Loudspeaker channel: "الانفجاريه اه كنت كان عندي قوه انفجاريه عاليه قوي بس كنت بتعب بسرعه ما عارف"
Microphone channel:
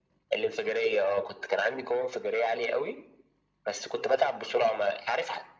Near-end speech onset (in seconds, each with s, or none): none